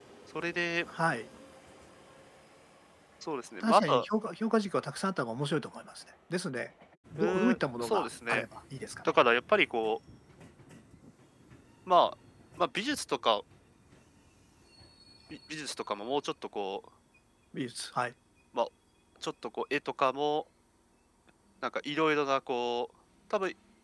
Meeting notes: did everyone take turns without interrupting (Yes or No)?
No